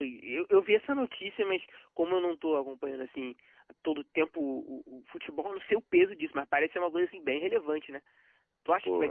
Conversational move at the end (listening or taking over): listening